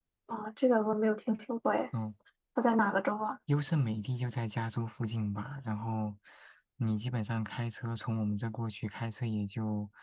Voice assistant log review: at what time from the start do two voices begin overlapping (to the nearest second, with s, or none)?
none